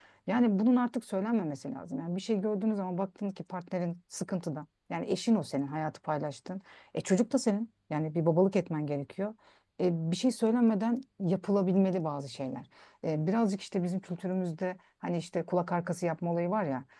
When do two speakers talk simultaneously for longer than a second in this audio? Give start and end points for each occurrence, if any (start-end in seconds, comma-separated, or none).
none